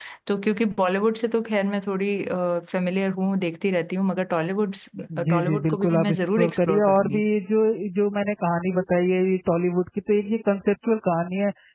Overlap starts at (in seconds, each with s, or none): 5.3 s